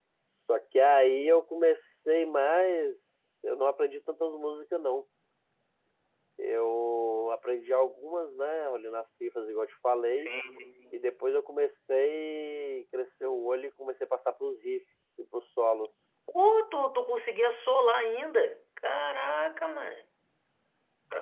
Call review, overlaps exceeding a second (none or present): none